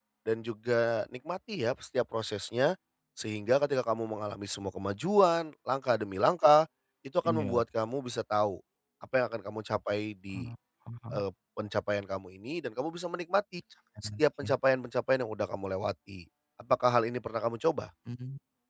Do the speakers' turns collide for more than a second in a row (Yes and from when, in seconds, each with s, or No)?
No